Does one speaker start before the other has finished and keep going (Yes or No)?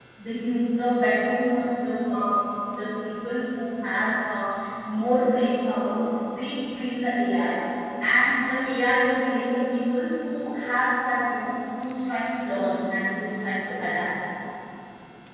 No